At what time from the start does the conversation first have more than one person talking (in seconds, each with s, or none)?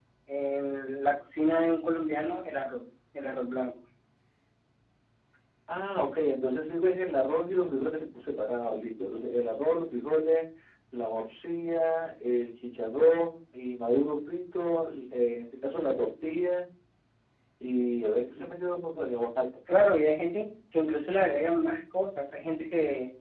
none